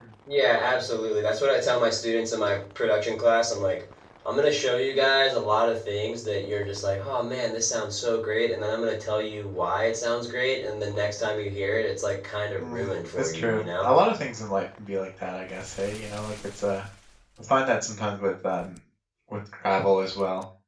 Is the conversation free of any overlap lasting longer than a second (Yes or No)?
No